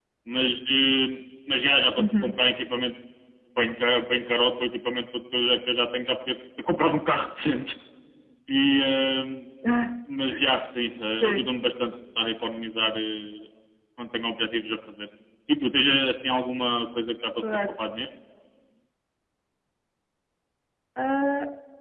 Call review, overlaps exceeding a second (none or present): none